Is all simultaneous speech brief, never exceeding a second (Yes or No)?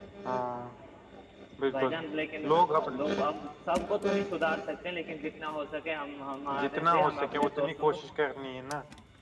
No